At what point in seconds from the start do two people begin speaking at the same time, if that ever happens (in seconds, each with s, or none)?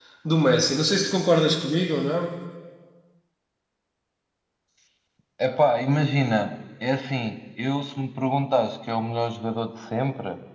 none